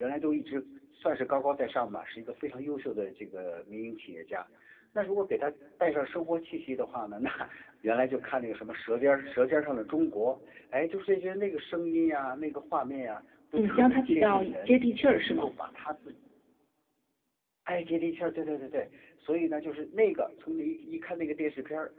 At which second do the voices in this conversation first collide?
13.6 s

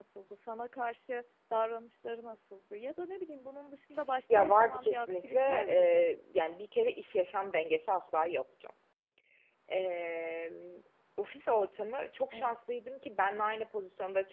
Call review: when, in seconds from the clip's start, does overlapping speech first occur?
4.3 s

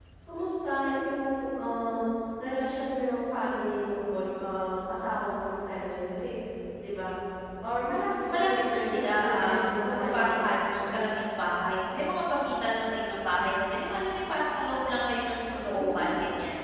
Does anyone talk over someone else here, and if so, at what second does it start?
8.3 s

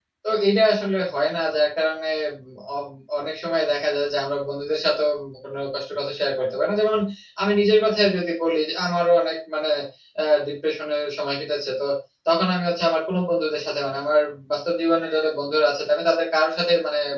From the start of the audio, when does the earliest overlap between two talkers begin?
none

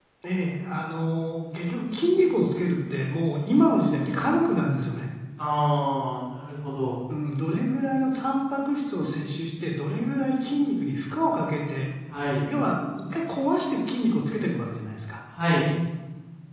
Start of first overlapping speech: none

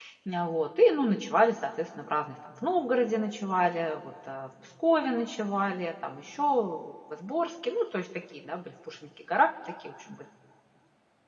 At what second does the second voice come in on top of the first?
none

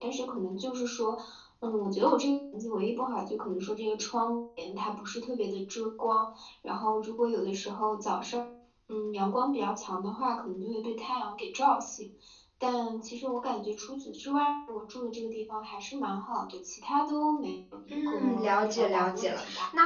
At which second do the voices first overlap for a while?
17.9 s

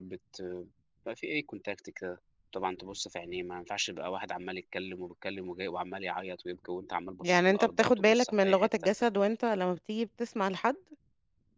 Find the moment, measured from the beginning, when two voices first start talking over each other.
7.2 s

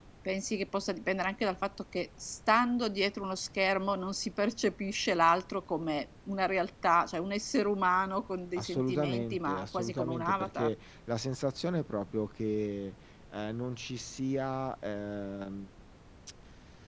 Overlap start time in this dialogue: 8.6 s

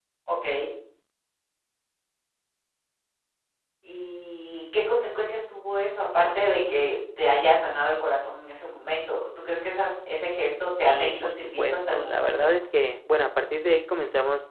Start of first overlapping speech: 10.8 s

